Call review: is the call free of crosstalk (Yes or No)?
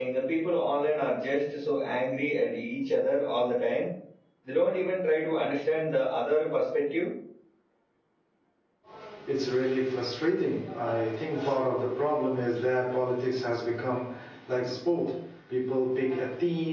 Yes